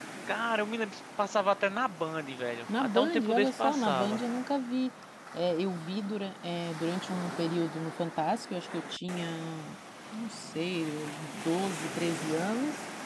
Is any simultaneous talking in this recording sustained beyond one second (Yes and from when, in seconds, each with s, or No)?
Yes, from 2.7 s